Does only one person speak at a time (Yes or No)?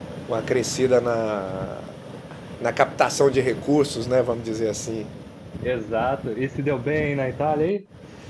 Yes